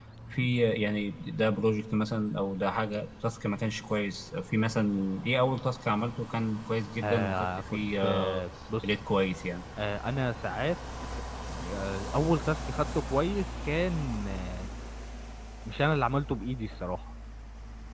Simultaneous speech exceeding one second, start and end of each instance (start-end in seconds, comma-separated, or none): 7.0-8.4